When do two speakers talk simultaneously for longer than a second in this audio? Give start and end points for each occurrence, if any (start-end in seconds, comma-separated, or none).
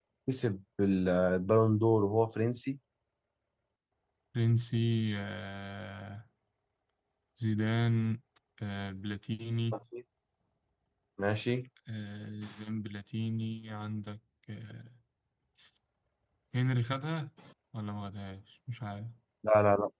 none